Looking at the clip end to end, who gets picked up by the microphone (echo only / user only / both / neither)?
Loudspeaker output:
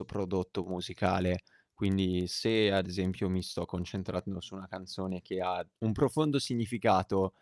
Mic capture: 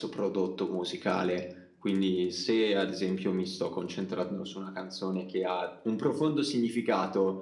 echo only